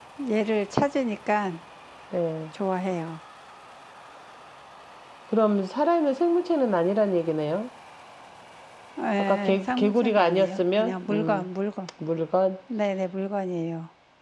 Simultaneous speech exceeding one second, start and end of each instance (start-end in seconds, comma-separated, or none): 9.2-11.4